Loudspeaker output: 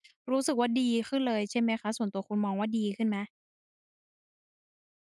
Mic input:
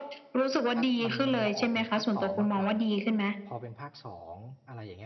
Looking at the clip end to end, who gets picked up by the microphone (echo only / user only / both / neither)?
both